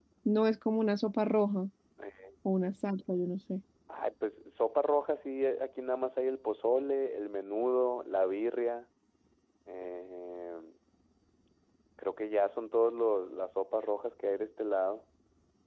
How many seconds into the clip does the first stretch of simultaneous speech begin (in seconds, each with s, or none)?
none